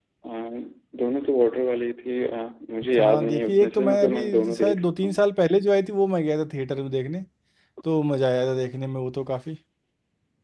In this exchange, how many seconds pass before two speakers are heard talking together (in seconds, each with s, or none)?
3.0 s